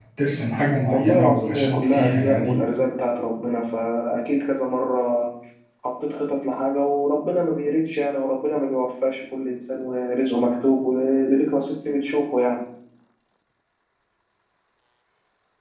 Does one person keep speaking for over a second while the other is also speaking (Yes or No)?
Yes